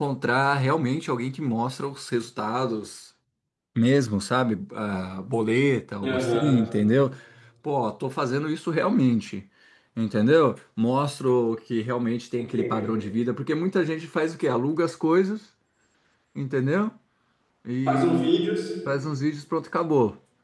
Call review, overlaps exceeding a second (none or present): none